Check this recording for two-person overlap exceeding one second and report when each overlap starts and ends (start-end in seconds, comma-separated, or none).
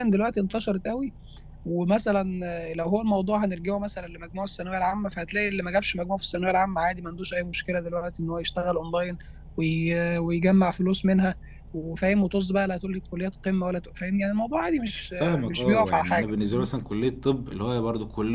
15.2-16.7